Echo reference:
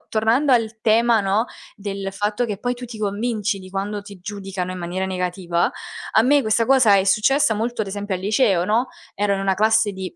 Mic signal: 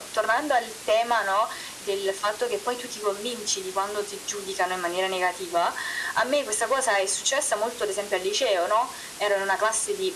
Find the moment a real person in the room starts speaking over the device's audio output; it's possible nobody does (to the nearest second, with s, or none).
none